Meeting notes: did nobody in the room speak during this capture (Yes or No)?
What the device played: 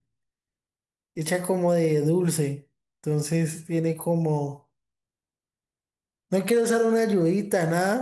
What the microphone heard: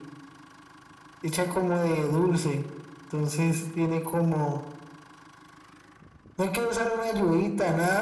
Yes